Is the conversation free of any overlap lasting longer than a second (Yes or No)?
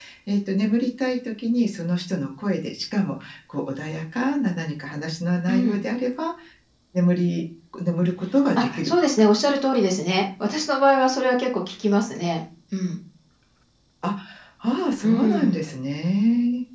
Yes